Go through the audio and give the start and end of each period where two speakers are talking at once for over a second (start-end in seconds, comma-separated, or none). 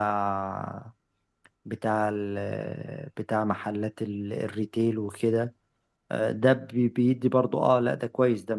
none